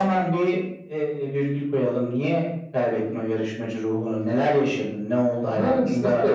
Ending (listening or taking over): taking over